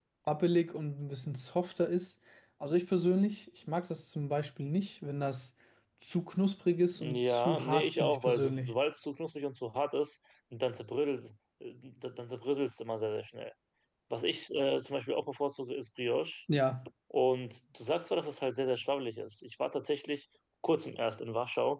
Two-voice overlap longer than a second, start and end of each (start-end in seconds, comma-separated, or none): 7.0-8.8